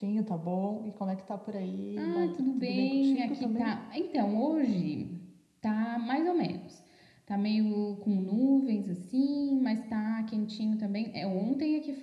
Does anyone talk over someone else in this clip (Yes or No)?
Yes